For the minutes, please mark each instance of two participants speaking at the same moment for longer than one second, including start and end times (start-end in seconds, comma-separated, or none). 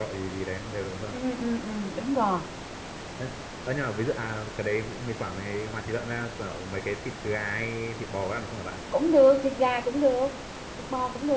none